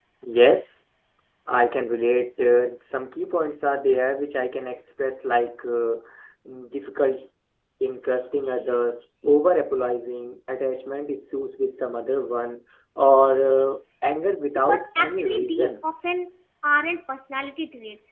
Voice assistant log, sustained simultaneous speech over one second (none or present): present